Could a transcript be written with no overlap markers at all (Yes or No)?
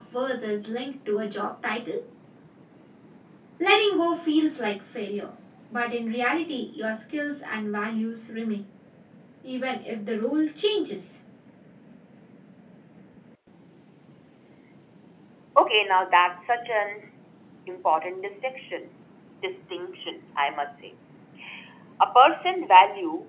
Yes